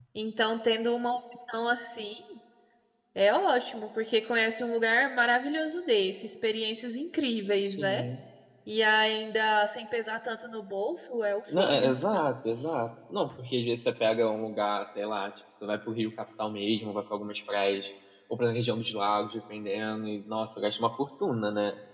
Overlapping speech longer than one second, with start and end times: none

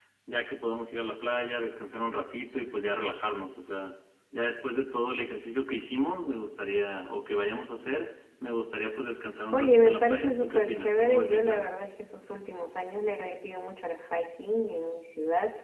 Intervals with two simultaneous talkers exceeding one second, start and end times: 9.5-11.7

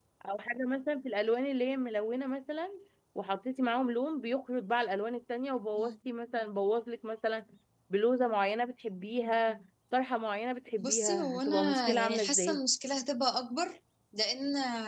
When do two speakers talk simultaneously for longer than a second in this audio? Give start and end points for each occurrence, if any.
10.8-12.6

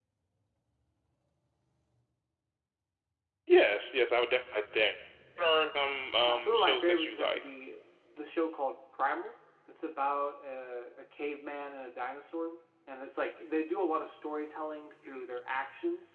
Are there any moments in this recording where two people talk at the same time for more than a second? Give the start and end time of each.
6.2-7.5

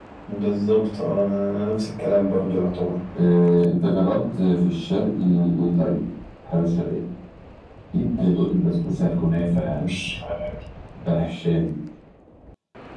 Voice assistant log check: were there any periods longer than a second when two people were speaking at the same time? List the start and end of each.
none

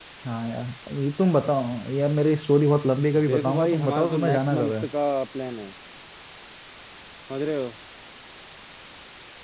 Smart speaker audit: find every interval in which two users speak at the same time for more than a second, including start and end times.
3.2-4.8

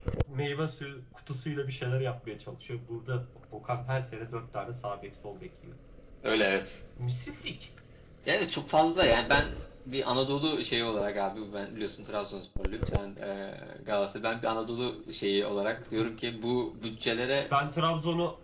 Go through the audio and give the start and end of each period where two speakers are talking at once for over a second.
none

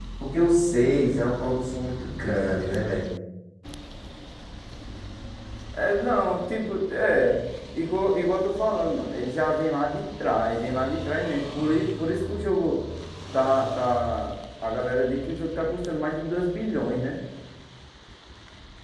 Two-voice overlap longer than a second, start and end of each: none

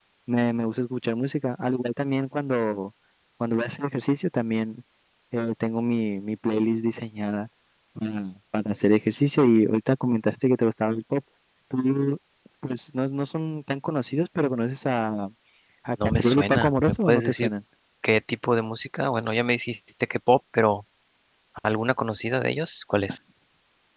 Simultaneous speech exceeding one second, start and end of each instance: 16.2-17.5

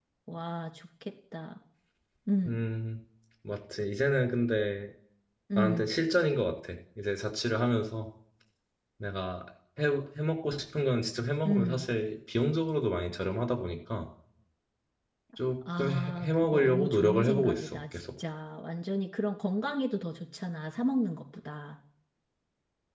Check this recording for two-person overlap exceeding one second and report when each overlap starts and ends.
15.8-18.0

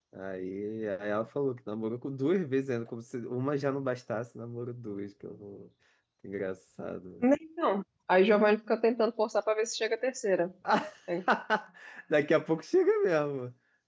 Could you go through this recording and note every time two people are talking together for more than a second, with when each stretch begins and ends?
none

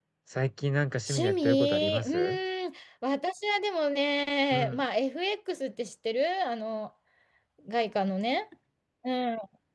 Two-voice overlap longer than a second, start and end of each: 1.1-2.4

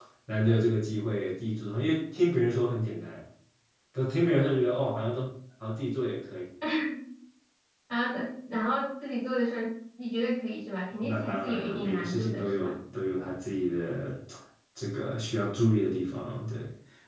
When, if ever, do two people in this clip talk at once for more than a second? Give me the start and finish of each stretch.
11.0-12.7

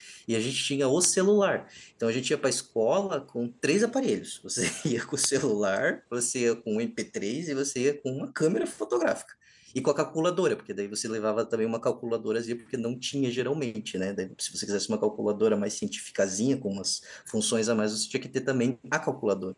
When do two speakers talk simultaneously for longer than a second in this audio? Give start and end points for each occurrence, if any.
none

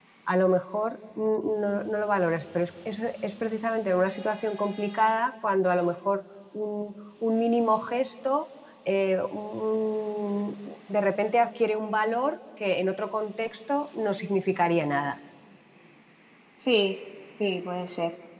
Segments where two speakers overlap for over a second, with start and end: none

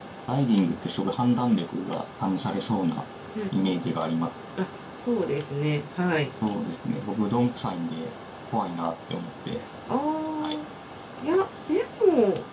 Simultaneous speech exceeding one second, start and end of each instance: none

